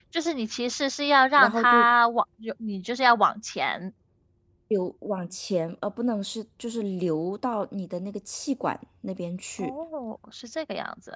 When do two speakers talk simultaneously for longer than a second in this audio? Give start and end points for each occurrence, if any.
none

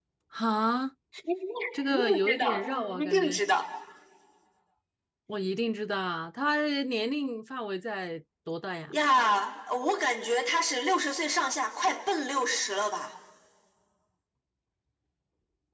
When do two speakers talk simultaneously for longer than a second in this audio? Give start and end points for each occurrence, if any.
1.8-3.4

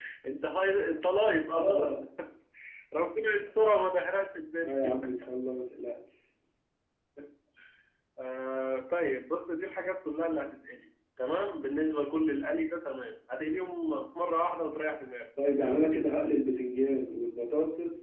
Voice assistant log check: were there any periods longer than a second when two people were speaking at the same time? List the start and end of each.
none

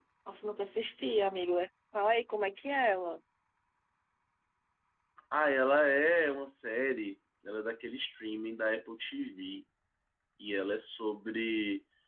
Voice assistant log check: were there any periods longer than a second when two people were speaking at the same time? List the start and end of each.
none

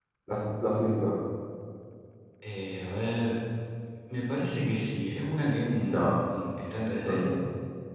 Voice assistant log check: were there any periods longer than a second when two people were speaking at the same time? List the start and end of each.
none

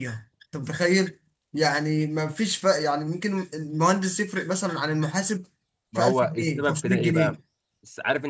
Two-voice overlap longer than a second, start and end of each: 6.0-7.4

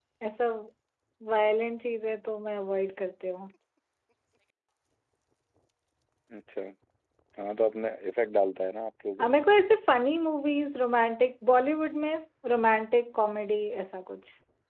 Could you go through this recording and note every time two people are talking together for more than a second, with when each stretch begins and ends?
none

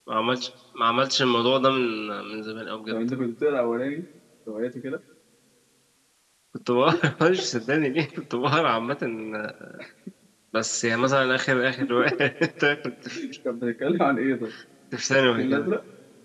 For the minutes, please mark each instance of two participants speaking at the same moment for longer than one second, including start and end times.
none

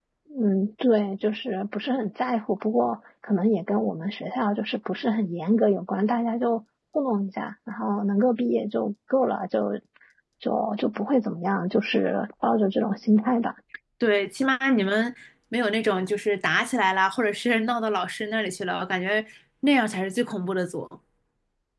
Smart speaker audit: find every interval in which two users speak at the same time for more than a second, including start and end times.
none

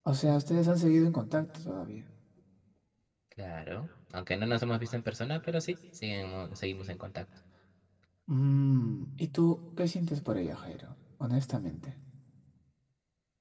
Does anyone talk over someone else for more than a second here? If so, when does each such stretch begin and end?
none

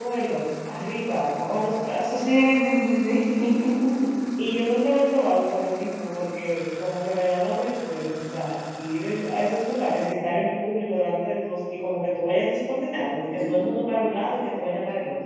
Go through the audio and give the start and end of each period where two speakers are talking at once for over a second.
none

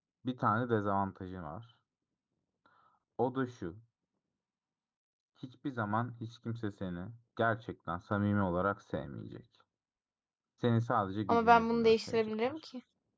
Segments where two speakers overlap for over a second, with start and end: 11.3-12.5

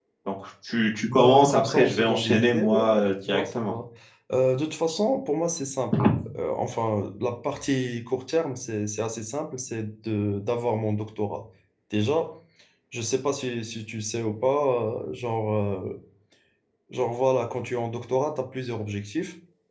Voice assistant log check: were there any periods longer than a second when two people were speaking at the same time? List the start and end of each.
1.1-3.7

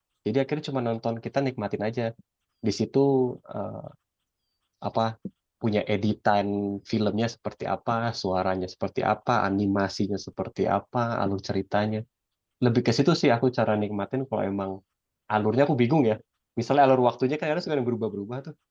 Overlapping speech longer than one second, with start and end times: none

